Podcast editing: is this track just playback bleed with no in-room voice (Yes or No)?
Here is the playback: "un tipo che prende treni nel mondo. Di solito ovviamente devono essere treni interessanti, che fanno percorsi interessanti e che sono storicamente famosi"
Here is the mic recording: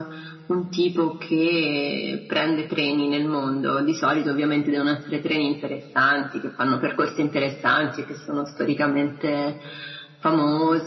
Yes